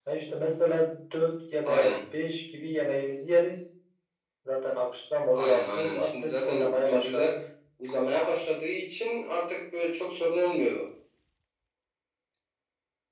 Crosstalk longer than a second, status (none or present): present